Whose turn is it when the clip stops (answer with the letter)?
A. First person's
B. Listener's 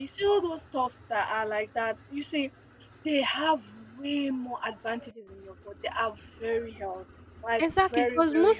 B